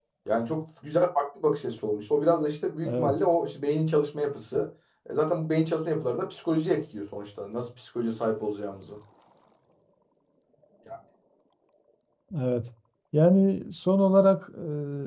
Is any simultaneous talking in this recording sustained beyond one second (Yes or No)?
No